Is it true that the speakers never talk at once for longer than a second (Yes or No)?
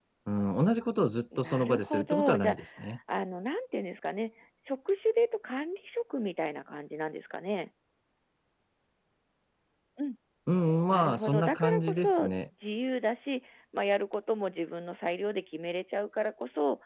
No